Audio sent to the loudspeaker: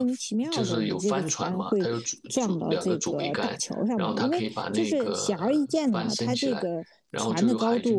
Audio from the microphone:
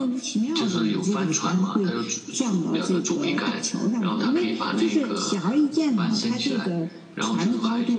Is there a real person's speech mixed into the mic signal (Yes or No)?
No